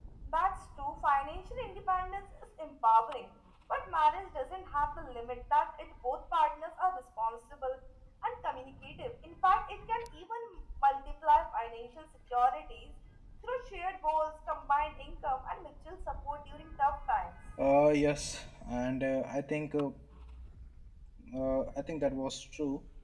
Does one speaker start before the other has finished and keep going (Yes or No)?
No